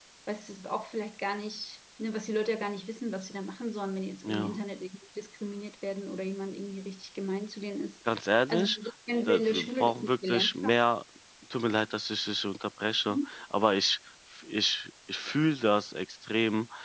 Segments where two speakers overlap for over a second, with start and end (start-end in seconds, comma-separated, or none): 9.3-10.8